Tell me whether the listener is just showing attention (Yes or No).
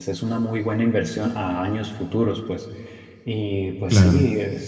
Yes